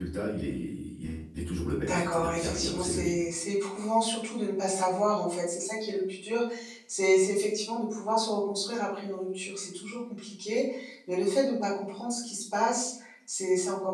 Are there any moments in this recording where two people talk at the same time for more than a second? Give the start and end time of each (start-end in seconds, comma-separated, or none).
1.8-3.2